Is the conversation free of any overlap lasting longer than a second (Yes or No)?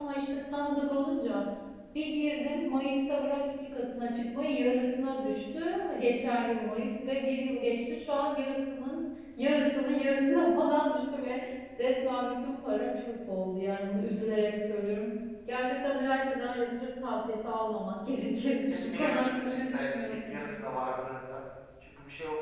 No